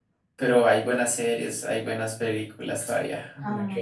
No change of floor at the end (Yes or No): No